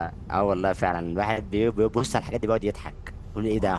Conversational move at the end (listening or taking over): listening